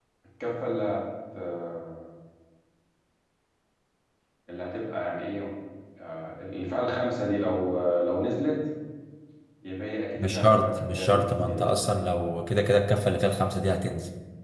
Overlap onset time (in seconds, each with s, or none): 10.2 s